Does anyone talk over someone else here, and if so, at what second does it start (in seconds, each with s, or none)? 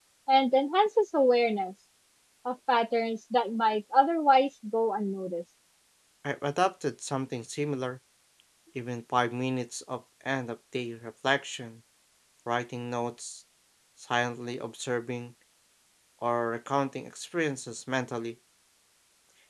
none